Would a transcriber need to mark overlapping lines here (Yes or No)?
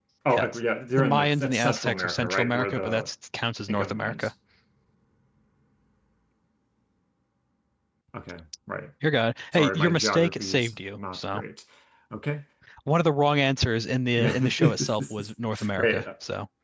Yes